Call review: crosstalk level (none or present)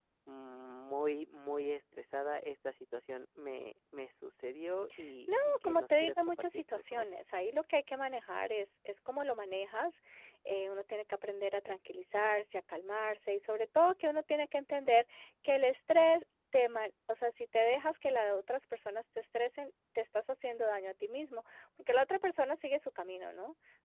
present